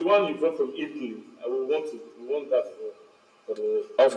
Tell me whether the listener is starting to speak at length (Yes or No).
Yes